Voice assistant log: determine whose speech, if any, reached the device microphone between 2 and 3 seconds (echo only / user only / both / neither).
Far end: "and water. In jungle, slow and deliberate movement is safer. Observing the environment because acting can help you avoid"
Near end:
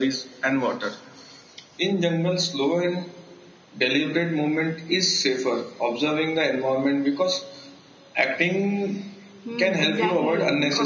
echo only